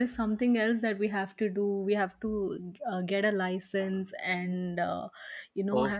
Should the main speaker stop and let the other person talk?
No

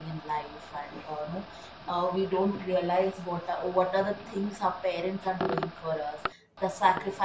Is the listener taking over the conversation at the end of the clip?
No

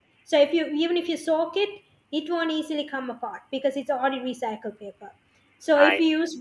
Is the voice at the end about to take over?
No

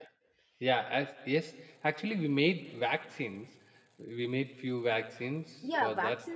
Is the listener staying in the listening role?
No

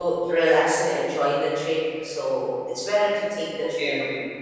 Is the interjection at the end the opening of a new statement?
Yes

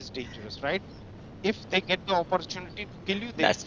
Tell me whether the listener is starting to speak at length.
No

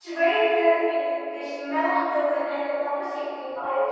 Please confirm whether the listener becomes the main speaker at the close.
Yes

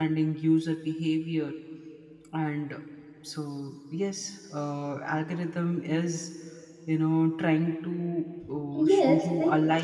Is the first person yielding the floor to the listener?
Yes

